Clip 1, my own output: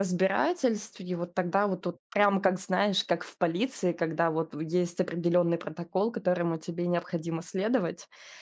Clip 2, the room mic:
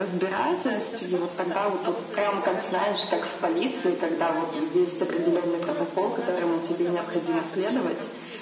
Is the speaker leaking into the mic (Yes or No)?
Yes